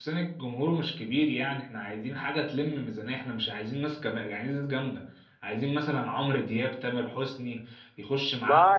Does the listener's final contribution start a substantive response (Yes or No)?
No